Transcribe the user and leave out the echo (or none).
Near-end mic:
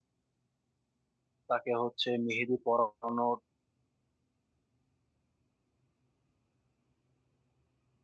তাকে হচ্ছে মেহেদি পরানোর